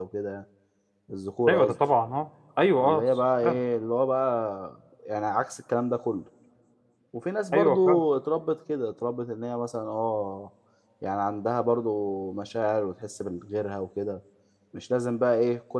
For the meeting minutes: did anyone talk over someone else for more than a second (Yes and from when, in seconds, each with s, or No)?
No